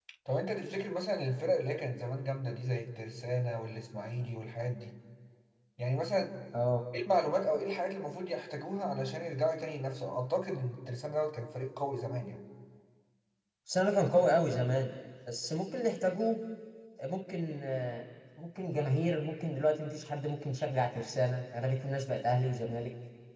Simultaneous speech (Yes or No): No